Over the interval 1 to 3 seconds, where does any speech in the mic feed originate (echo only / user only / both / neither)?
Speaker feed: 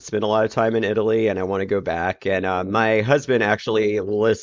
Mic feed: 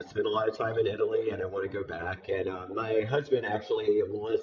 echo only